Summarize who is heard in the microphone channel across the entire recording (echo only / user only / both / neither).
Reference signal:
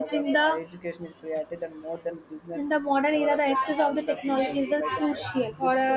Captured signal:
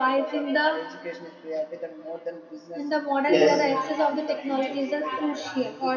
both